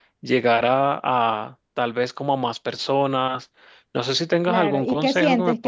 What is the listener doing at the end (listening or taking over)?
taking over